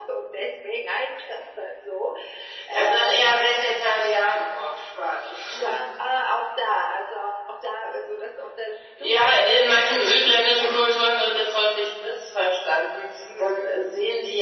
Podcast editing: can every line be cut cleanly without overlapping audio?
No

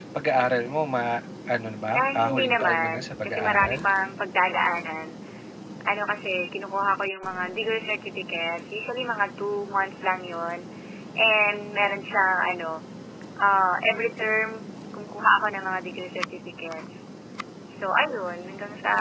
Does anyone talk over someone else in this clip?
Yes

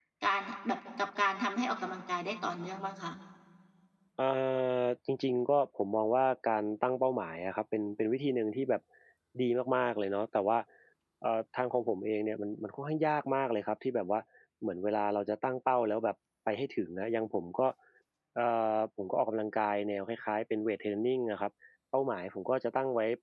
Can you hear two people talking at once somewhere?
No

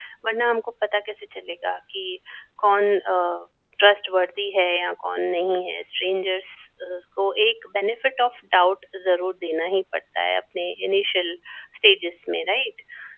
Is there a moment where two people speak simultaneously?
No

